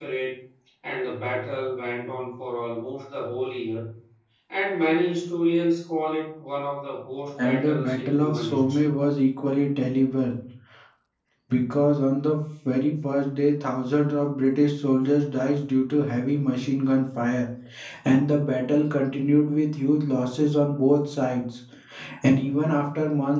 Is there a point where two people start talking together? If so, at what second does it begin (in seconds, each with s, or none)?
7.4 s